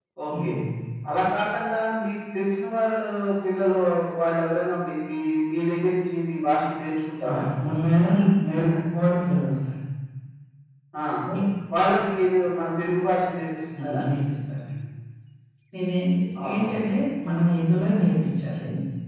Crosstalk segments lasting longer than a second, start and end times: none

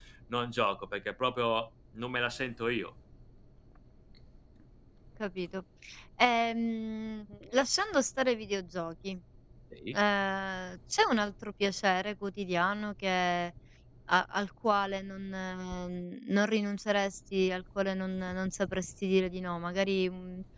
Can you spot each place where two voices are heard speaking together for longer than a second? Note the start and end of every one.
none

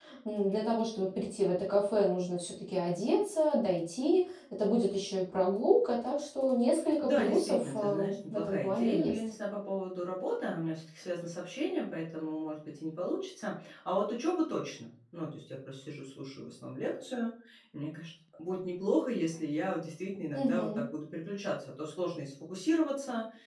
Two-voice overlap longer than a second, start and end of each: 7.0-9.2

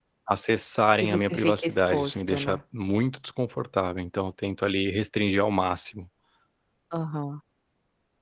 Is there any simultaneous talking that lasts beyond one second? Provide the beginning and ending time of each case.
1.0-2.6

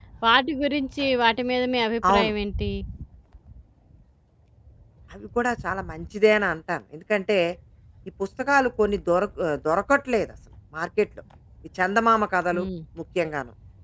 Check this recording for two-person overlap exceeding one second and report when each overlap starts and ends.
none

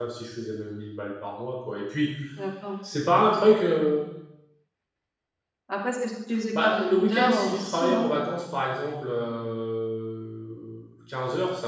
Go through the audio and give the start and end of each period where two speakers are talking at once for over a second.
6.6-8.1

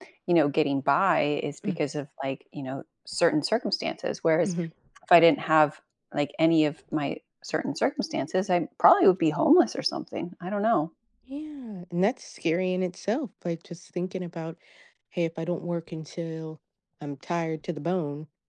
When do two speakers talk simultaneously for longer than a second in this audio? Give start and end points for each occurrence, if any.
none

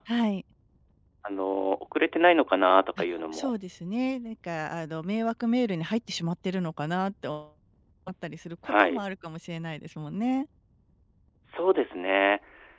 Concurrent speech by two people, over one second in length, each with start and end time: none

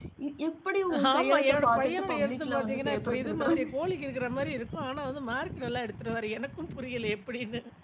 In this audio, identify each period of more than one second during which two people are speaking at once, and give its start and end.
1.1-3.5

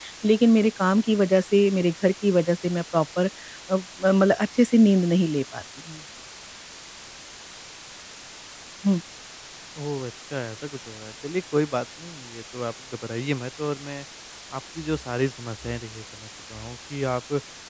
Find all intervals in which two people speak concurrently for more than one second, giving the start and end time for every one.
none

